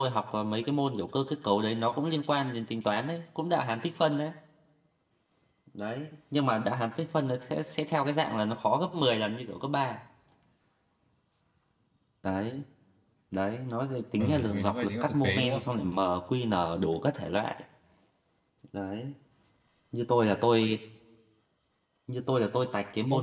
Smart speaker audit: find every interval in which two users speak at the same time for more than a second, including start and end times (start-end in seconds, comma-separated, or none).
14.2-15.6